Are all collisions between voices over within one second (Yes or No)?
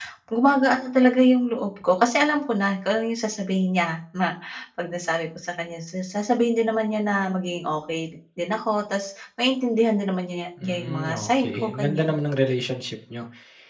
No